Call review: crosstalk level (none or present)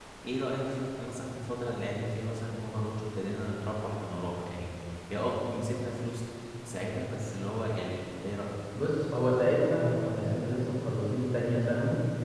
none